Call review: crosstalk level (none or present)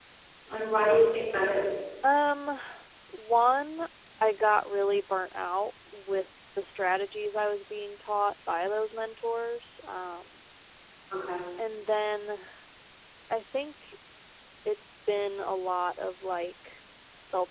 none